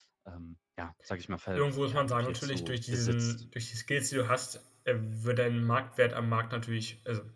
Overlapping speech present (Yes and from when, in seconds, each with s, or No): Yes, from 1.6 s